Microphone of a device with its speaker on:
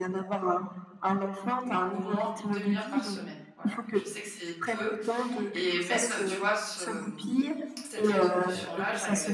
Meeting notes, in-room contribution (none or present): present